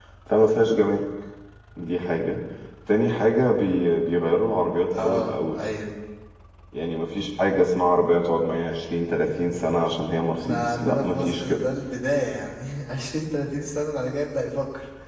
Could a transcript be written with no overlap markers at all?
No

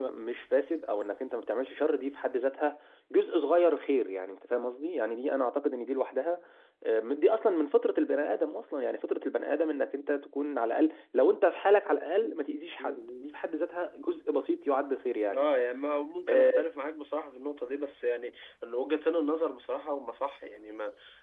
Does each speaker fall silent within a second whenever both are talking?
Yes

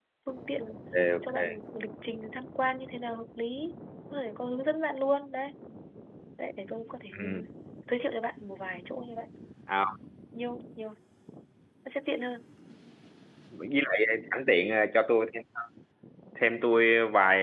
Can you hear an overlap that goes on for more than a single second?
No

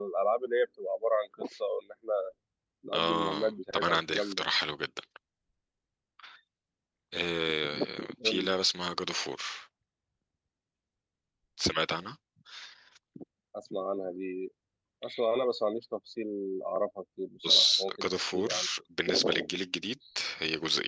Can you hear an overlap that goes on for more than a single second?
Yes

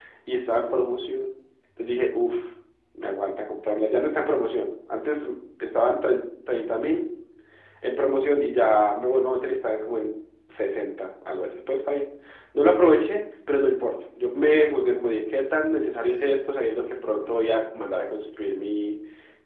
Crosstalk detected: No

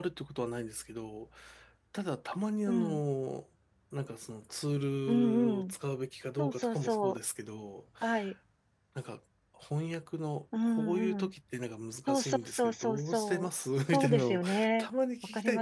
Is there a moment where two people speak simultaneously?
Yes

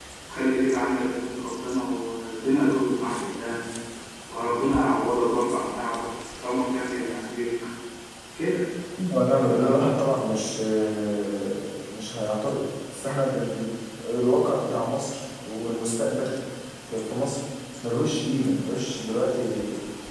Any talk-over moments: No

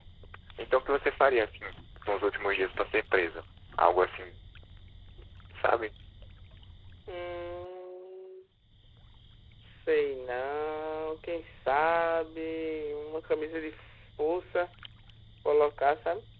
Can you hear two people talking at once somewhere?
No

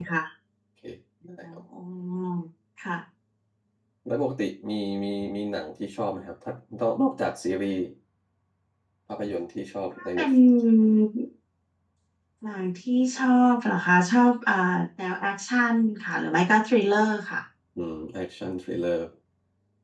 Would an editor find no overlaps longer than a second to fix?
Yes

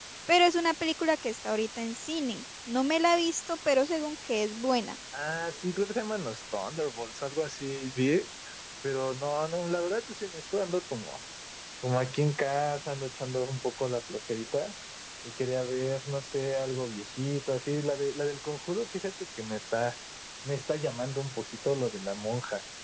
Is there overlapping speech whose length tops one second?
No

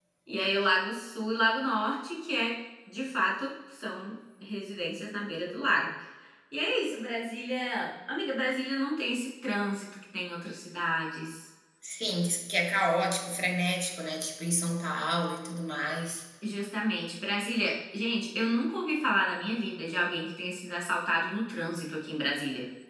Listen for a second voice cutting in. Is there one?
No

